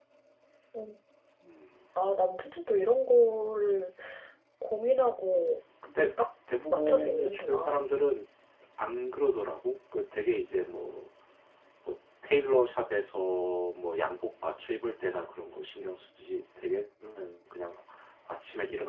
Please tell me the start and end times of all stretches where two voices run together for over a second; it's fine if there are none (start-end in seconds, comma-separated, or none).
6.7-7.9